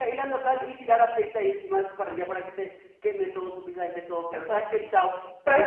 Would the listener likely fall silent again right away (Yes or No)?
No